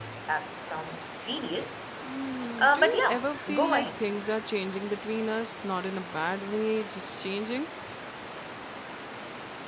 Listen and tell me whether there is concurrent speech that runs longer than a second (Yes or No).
Yes